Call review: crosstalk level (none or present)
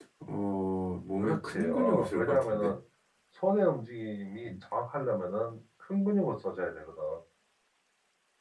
present